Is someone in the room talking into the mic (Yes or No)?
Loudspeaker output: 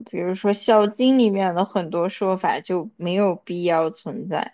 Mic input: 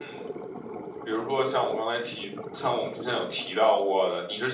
Yes